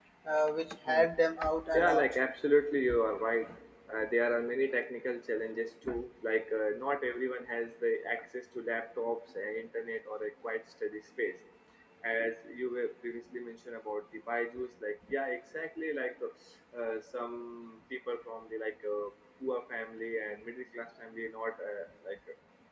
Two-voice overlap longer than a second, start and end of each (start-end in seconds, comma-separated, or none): none